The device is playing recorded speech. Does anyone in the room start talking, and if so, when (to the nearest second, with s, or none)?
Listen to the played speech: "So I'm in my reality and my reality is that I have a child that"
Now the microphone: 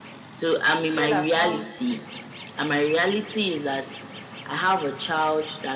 1 s